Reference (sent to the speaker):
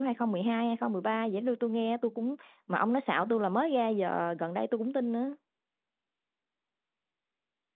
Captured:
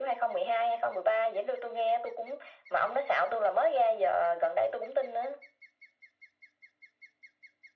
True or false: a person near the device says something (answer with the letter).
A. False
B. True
A